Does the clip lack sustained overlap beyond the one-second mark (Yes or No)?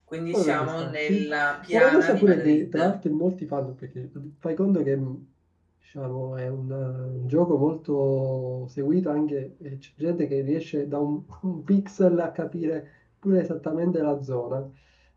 No